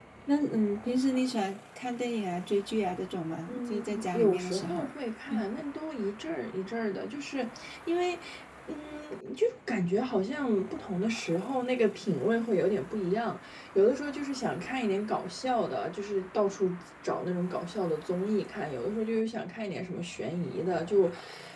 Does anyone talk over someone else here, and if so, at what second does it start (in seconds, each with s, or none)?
3.5 s